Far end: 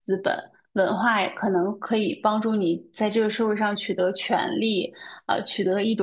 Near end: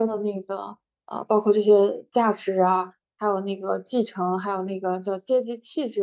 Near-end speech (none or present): present